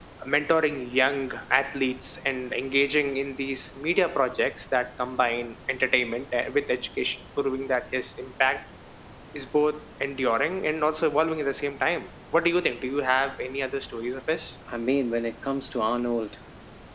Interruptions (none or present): none